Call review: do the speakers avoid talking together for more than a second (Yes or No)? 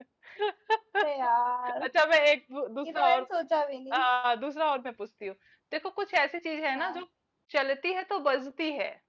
Yes